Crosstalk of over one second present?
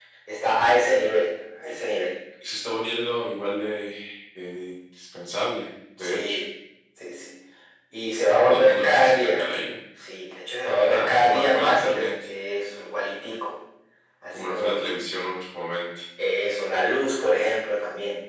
Yes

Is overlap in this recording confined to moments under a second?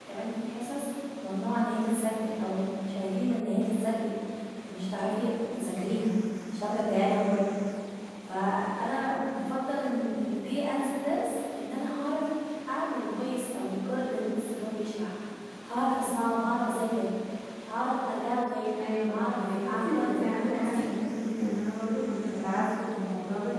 No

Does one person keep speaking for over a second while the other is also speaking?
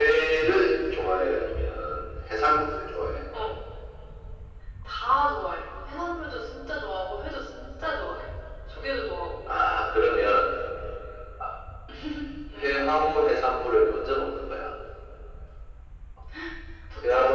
No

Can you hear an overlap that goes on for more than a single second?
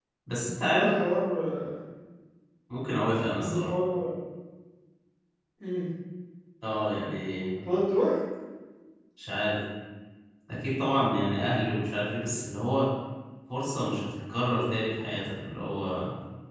No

